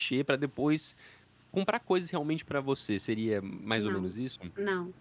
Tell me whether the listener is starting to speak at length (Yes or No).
Yes